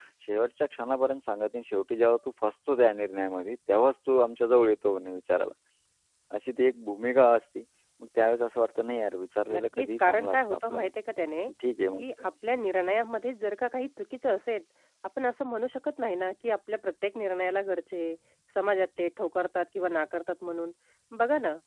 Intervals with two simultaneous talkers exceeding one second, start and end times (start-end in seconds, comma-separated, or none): 9.5-10.9